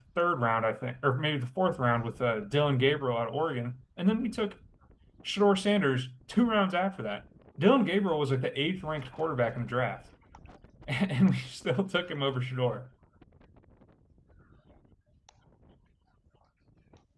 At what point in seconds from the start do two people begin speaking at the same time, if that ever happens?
none

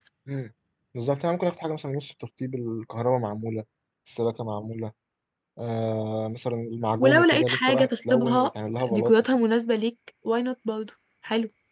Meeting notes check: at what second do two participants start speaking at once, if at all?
7.0 s

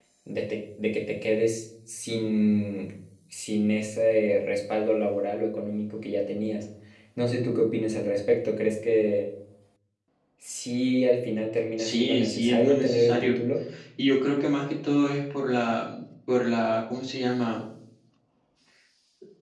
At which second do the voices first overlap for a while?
11.8 s

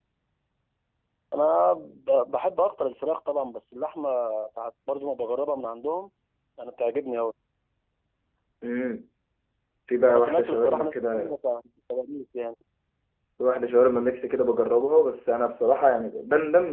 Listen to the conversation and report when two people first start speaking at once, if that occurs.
10.1 s

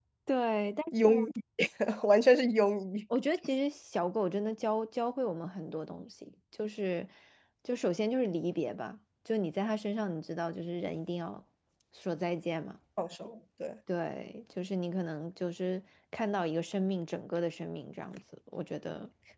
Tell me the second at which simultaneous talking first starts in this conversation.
none

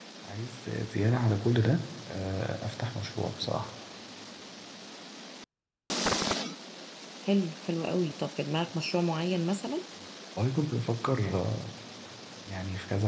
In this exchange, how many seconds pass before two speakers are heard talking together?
none

